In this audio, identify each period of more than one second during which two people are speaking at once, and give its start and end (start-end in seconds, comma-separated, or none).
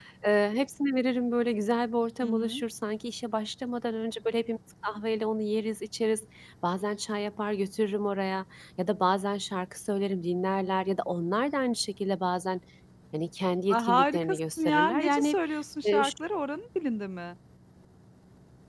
13.7-15.3